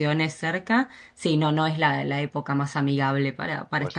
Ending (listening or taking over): taking over